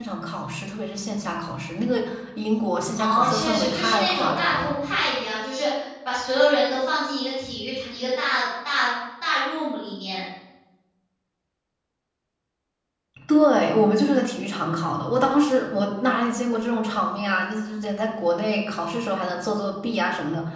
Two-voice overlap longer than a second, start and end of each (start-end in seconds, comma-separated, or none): 3.0-4.7